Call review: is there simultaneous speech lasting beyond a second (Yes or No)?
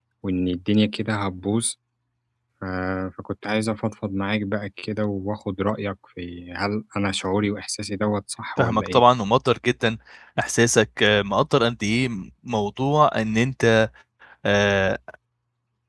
No